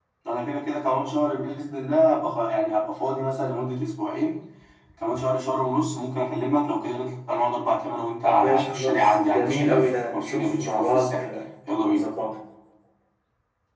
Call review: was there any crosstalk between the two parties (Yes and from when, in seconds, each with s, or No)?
Yes, from 8.2 s